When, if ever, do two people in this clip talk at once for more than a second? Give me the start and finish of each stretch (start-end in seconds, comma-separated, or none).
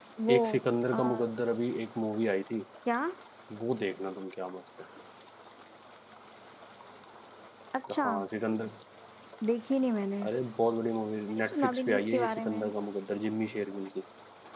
11.3-12.7